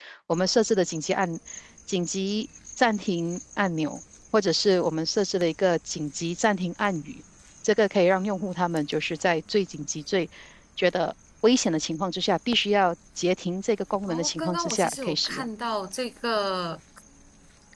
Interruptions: present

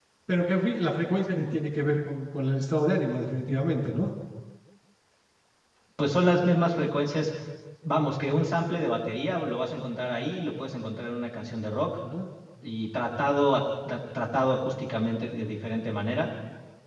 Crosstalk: none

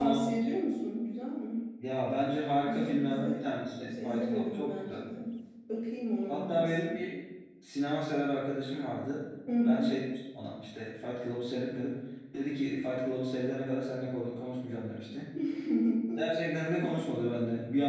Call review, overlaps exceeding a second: present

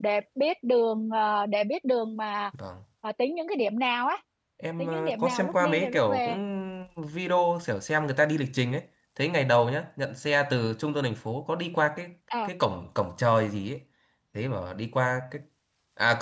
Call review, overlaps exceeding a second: present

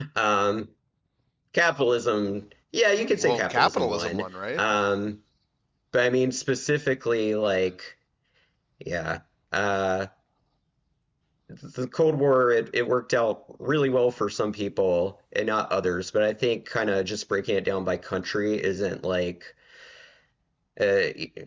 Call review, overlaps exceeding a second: present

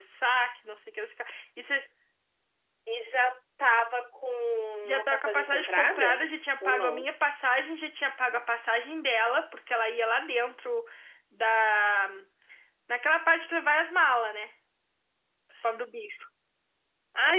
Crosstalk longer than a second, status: present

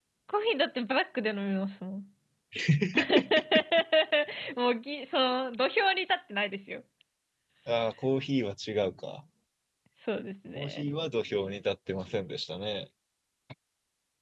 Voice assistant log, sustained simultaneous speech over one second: none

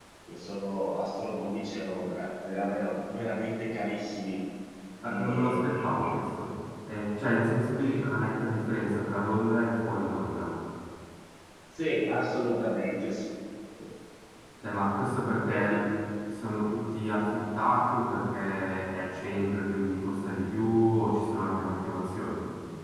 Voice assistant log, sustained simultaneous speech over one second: present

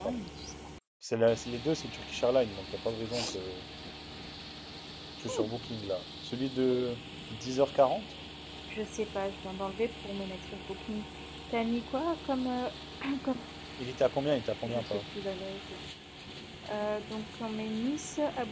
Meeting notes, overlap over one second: none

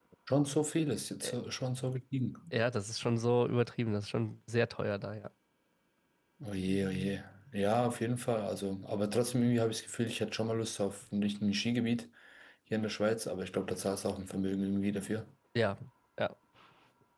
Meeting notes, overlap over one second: none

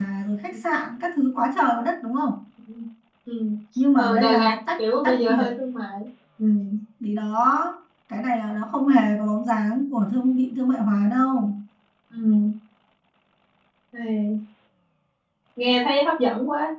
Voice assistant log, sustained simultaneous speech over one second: present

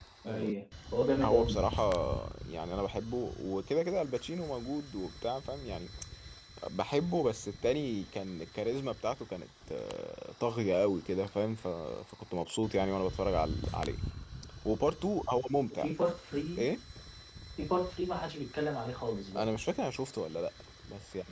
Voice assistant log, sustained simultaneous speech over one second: none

